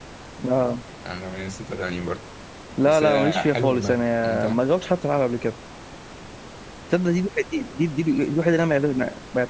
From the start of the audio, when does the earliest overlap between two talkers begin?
2.8 s

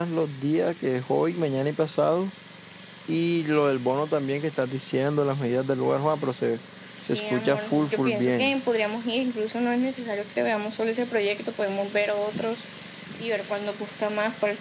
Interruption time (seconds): 7.1 s

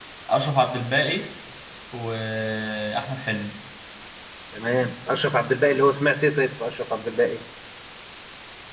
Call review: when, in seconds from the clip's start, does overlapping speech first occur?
none

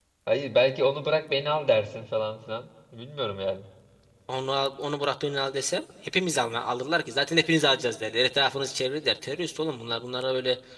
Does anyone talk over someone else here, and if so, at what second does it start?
none

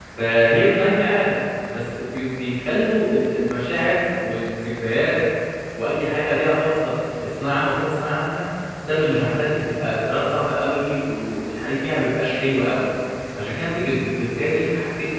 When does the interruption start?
none

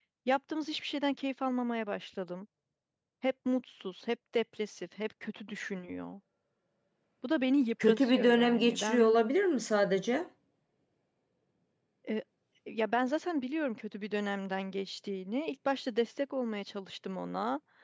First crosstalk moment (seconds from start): 7.8 s

